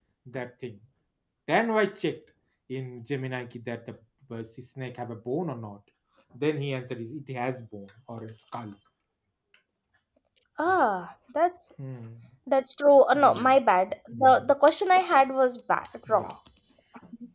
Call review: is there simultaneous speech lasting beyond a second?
No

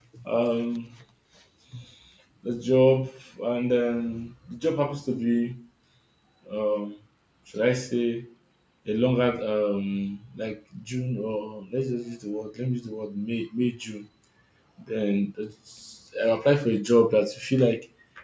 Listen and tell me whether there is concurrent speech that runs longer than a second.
No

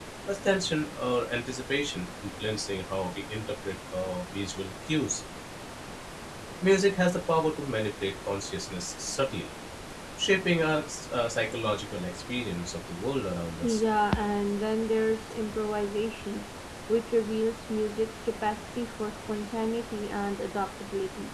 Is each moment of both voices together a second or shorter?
Yes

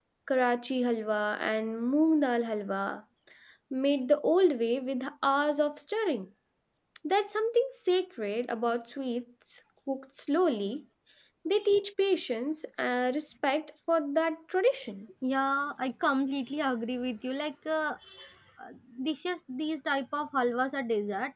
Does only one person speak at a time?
Yes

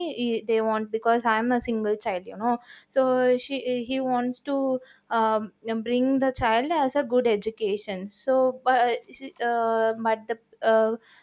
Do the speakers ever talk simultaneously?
No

